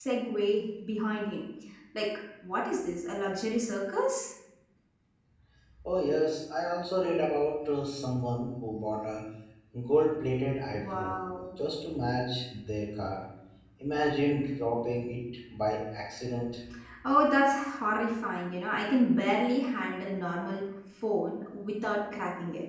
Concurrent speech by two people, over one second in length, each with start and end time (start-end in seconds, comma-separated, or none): none